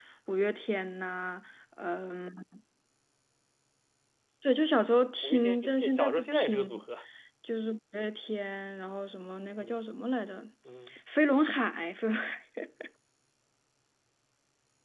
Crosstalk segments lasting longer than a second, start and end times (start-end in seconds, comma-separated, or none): 5.2-6.8